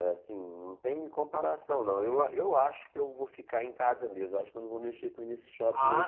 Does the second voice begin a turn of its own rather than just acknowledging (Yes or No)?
Yes